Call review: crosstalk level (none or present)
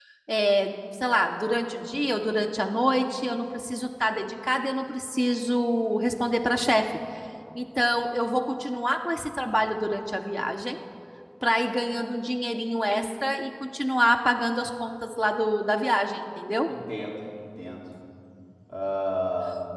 none